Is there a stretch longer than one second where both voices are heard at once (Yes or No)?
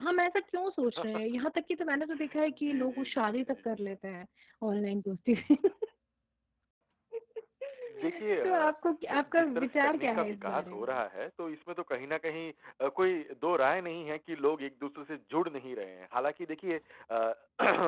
Yes